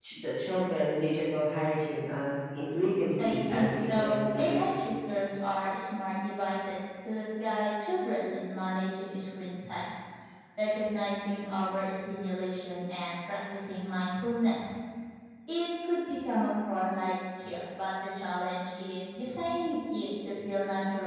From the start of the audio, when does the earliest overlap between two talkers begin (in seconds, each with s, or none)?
3.2 s